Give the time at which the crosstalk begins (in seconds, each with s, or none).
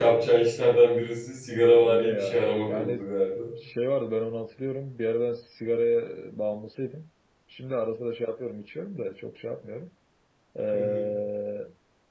1.8 s